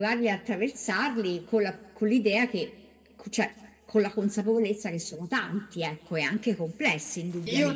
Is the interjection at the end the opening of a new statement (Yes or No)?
Yes